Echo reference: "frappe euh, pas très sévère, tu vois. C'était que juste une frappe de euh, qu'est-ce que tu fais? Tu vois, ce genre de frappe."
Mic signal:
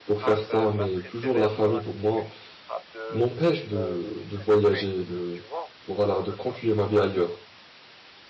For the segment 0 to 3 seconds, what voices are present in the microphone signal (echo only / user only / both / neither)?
both